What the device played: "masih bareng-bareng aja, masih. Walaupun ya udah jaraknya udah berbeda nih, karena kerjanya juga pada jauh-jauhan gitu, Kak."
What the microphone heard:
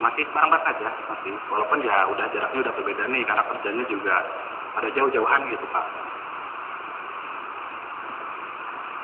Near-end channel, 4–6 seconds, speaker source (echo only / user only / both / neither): echo only